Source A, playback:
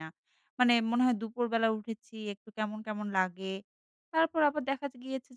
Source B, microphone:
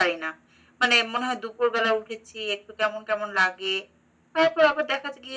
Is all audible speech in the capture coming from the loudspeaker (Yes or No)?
Yes